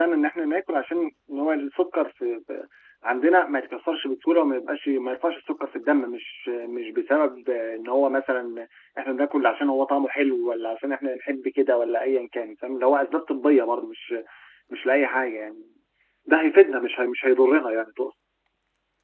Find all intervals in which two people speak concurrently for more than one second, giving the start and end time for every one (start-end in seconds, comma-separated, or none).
none